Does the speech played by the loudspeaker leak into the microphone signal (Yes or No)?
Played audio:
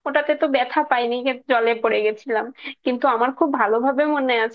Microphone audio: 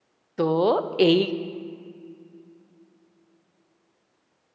No